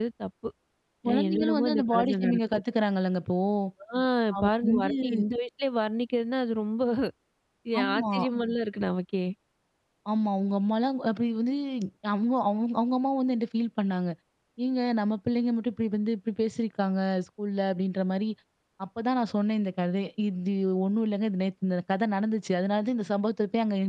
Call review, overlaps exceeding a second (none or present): present